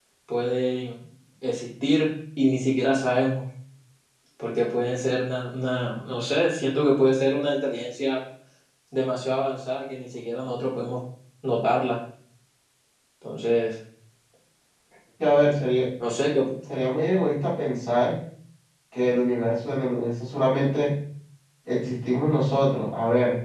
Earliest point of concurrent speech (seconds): none

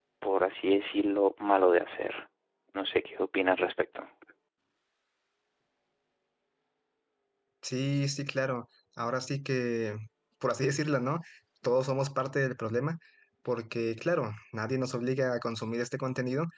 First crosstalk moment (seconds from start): none

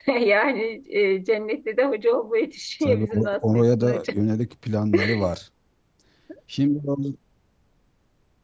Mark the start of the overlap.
3 s

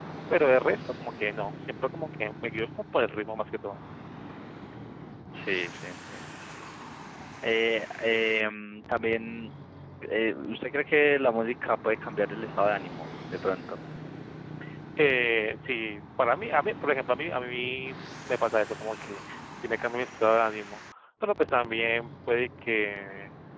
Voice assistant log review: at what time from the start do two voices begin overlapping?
none

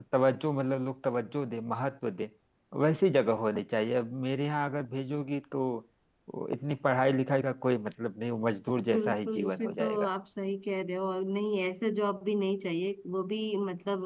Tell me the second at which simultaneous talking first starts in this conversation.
9 s

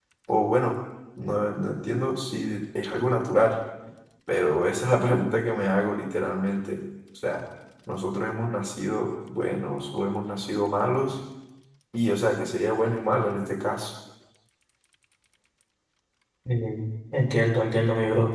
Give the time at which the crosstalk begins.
none

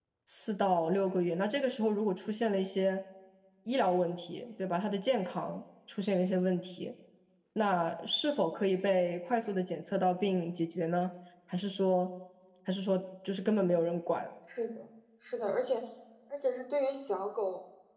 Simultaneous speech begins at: none

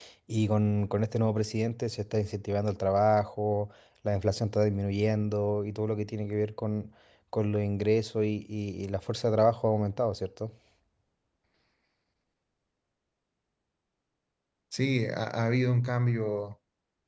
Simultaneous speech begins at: none

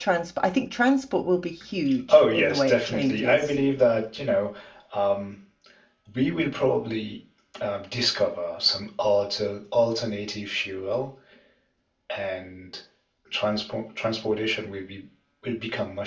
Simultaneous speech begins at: 2 s

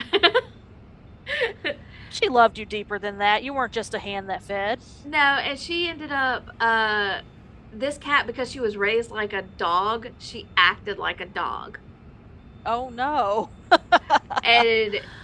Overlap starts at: none

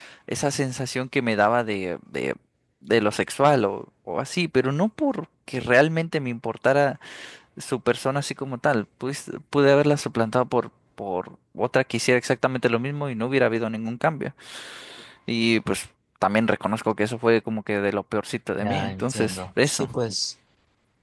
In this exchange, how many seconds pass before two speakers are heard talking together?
19 s

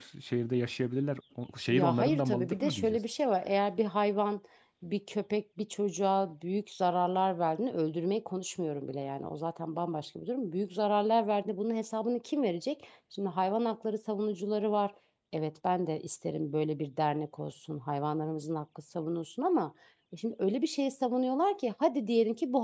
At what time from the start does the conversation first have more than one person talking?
2 s

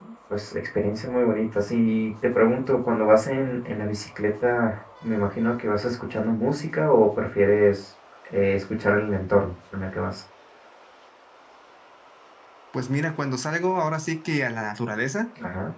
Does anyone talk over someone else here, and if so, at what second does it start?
none

